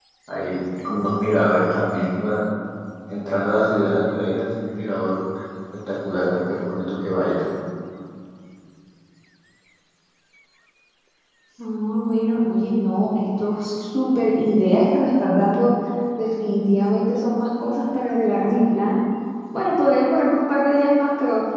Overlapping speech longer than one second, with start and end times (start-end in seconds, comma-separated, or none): none